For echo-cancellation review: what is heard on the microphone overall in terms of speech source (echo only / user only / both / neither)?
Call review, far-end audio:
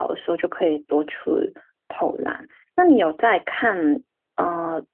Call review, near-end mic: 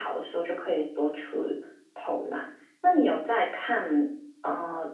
echo only